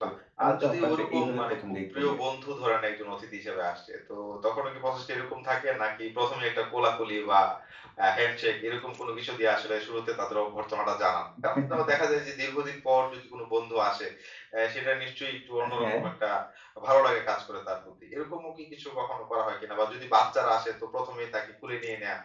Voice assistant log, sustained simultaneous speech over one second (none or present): present